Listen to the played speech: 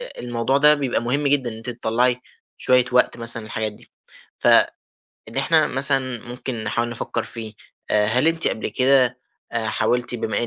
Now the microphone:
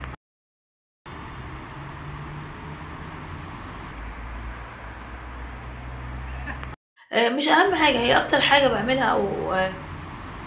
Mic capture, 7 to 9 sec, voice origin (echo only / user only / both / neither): user only